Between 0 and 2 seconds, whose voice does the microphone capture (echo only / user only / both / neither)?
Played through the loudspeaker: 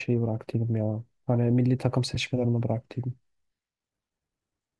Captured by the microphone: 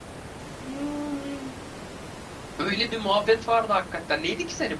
user only